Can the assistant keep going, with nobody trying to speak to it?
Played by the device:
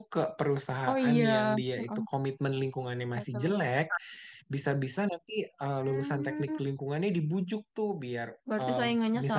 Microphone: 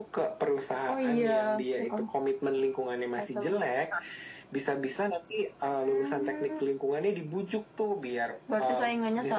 Yes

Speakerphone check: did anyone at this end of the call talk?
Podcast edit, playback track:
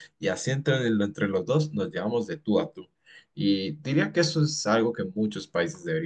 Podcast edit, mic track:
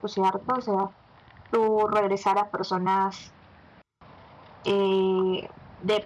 Yes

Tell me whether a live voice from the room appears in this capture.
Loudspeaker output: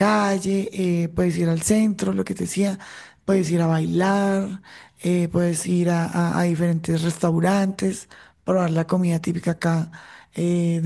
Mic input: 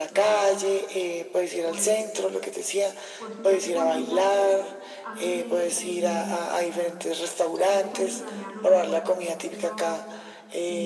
Yes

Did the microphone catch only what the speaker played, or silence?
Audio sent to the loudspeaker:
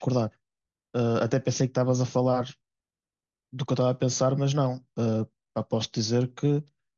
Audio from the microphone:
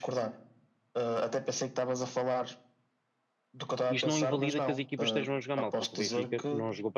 No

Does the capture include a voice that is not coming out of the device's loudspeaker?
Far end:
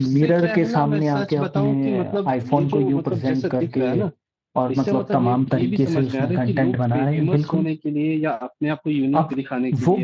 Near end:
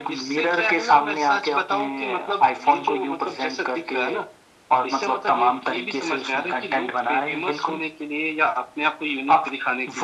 No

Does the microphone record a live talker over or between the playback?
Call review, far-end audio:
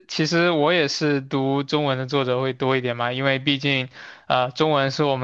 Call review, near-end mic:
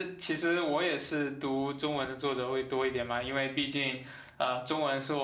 No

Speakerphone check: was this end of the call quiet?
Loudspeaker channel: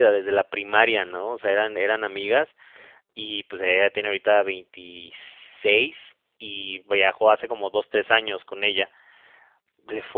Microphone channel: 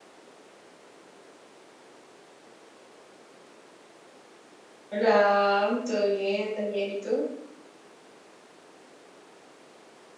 No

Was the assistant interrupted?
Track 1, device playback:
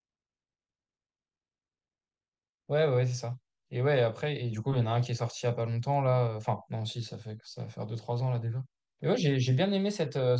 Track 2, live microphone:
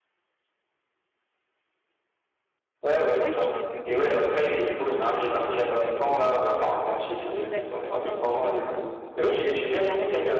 Yes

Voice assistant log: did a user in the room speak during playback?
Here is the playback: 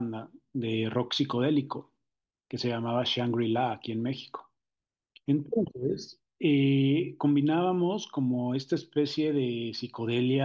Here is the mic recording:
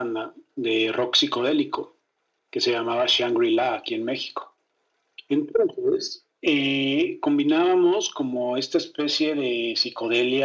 No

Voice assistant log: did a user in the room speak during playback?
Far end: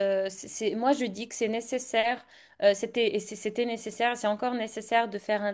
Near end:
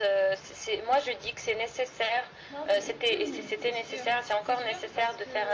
Yes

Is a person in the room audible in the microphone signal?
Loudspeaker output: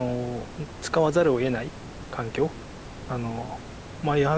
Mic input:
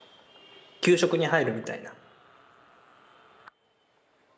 Yes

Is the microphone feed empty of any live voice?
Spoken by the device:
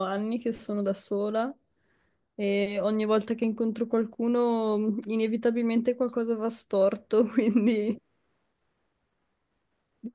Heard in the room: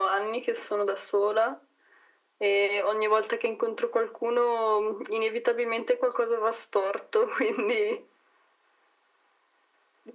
Yes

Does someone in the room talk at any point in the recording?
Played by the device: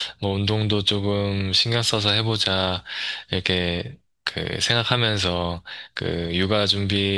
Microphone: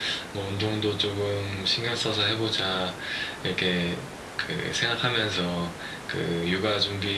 No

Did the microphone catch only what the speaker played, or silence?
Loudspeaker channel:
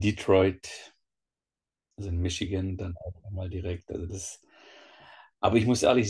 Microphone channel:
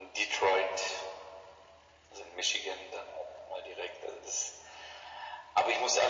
Yes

